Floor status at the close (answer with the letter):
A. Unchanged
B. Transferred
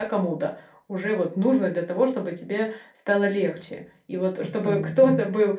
A